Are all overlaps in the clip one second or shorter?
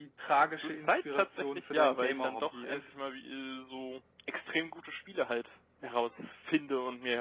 No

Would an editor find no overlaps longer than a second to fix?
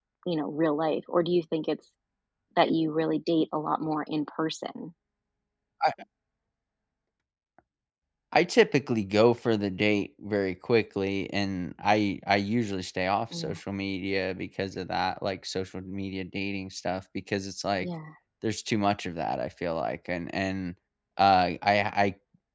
Yes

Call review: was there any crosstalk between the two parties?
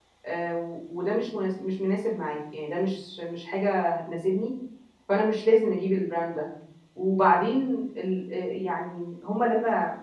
No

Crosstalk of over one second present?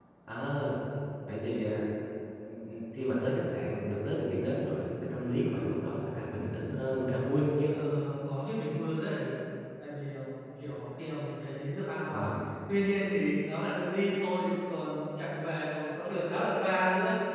No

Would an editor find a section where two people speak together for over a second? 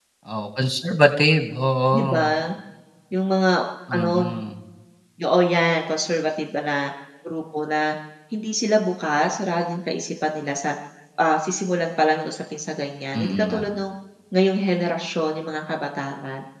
No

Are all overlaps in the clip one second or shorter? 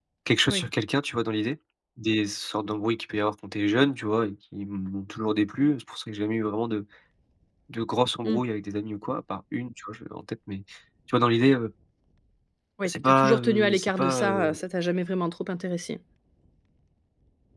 No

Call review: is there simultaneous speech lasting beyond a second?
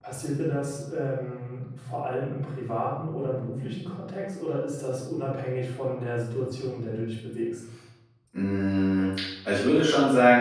No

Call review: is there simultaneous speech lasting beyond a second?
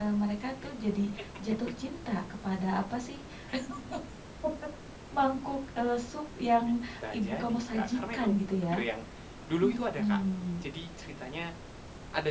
Yes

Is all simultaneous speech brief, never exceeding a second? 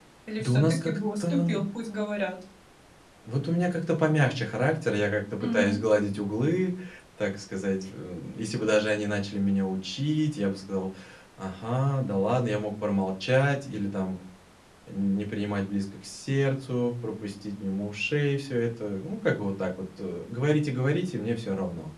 No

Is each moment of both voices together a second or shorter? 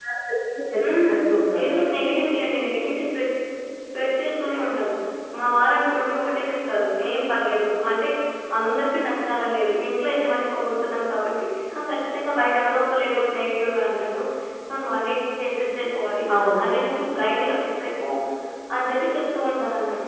Yes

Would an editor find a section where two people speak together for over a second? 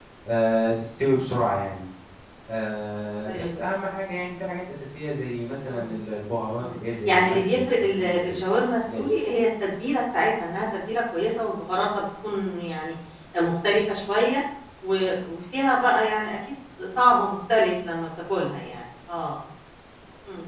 Yes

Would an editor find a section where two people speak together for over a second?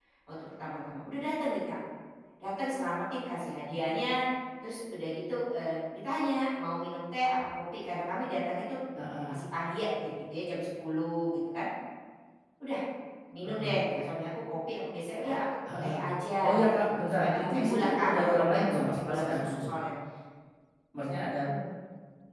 Yes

